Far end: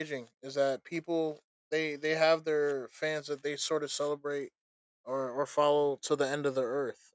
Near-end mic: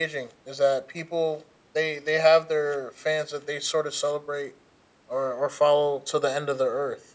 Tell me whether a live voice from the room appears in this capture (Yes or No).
No